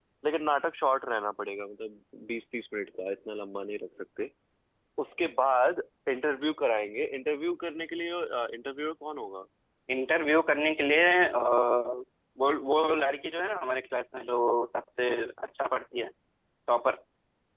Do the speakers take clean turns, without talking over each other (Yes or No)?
Yes